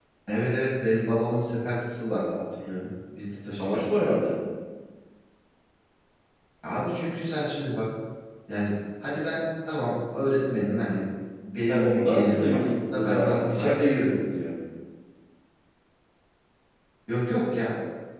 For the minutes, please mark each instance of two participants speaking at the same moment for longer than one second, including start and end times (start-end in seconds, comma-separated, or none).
11.7-14.1